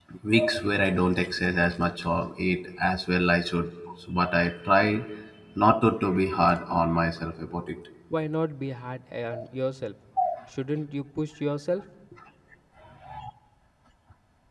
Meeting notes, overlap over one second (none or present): none